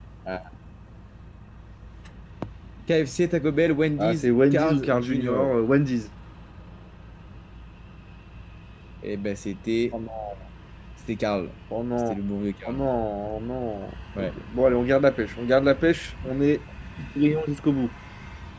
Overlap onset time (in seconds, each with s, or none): 4.0 s